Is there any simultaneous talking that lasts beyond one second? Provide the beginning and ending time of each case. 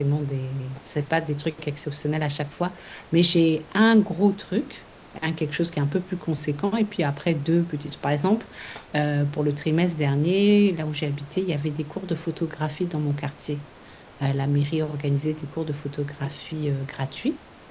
none

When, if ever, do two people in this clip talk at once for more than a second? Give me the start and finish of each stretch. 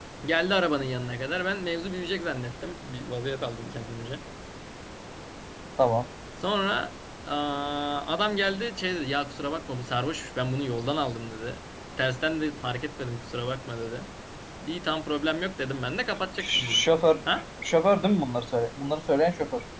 none

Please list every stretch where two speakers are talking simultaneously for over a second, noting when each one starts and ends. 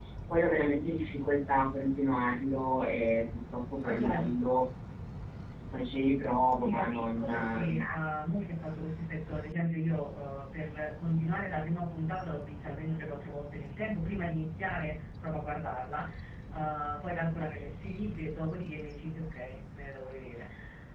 6.6-7.9

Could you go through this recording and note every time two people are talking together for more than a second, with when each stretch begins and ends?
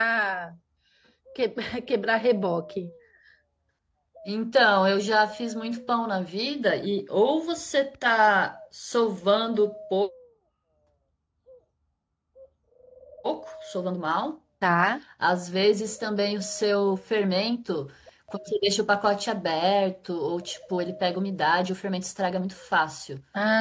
none

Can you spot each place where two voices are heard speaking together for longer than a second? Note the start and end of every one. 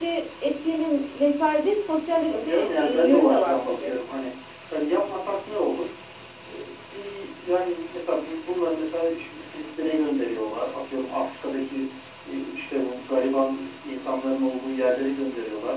2.3-4.0

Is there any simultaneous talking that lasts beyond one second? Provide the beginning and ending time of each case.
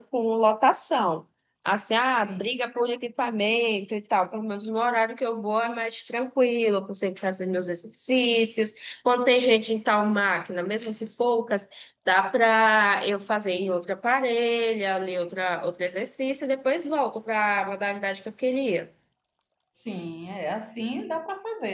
none

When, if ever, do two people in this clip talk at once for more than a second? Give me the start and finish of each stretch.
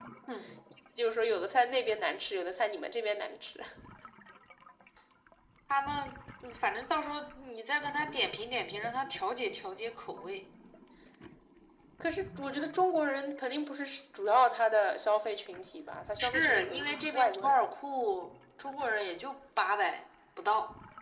16.2-17.6

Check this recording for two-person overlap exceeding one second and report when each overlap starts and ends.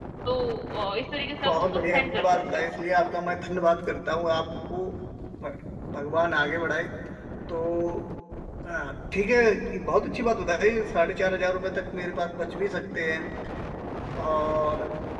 1.4-2.7

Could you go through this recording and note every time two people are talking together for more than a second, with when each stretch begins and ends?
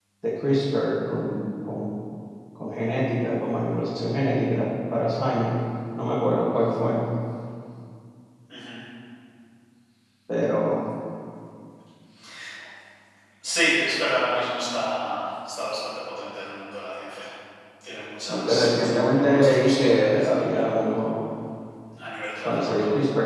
18.3-20.7

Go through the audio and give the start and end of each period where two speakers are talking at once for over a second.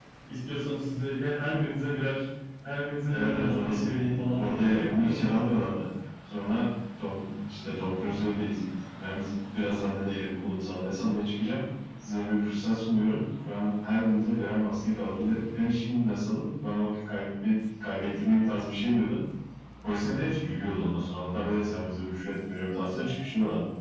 3.1-5.3

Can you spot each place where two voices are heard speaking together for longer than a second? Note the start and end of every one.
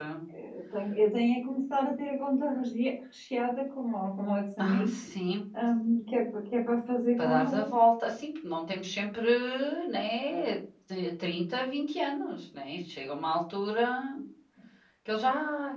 none

